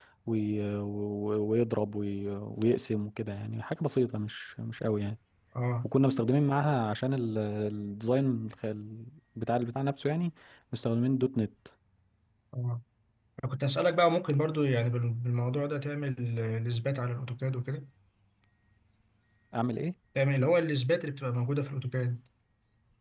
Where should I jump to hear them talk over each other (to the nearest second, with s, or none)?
none